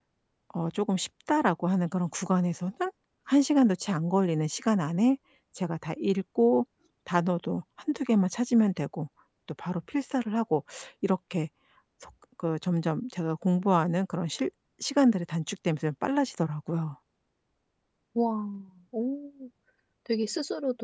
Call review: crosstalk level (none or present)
none